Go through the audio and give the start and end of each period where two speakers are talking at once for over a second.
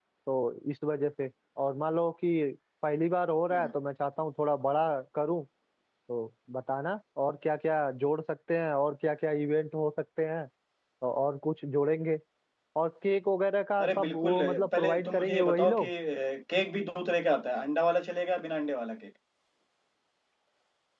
13.8-15.9

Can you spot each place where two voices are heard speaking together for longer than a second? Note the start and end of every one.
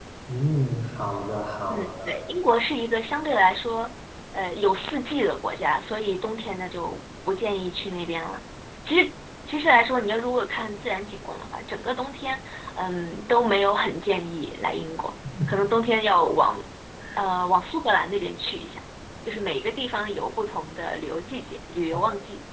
none

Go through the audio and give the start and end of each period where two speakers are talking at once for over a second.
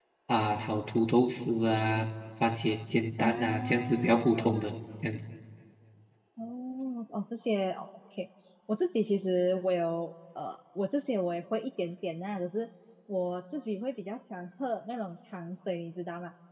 3.2-4.7

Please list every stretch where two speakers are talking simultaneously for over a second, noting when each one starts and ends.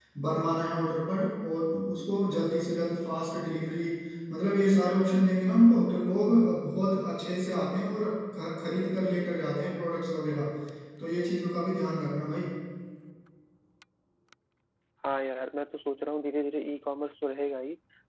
none

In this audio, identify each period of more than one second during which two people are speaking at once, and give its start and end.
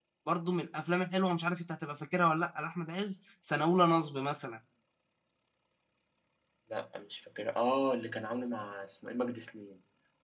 none

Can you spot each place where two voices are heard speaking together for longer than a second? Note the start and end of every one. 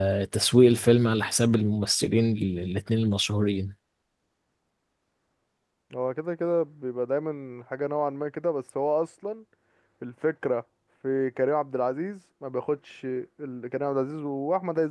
none

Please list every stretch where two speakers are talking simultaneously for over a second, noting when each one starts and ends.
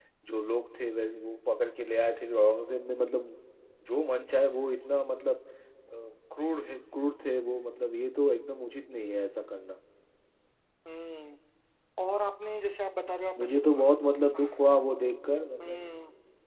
none

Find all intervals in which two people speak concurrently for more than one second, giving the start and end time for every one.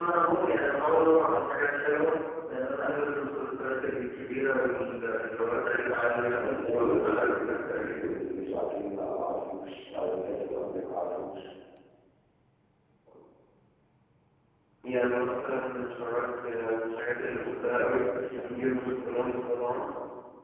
6.4-8.1

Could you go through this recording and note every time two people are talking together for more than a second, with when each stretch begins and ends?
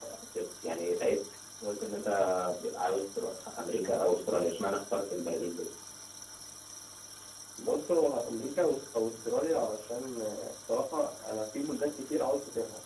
none

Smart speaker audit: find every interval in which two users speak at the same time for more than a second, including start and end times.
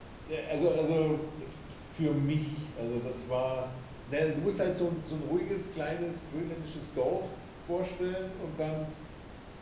none

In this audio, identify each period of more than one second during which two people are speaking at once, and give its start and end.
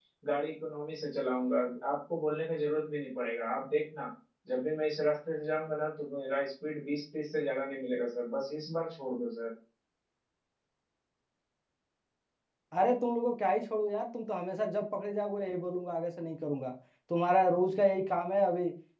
none

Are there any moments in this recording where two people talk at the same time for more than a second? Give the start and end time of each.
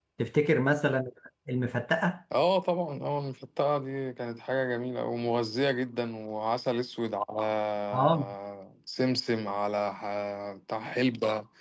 none

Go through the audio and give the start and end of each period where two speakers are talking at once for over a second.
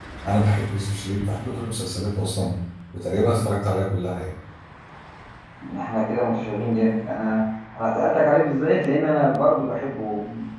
none

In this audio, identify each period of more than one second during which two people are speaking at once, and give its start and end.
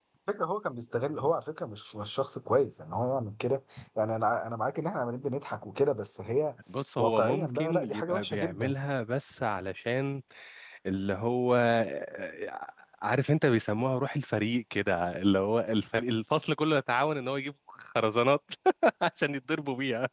7.0-8.7

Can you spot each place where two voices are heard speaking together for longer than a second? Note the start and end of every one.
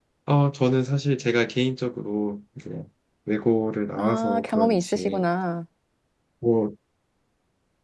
4.0-5.2

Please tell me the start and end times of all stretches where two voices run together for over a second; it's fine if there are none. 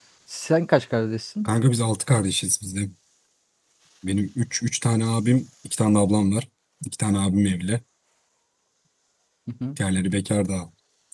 none

